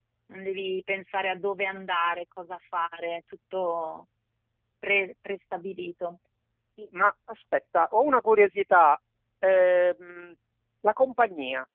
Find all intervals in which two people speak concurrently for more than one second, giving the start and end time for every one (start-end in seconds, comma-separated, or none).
none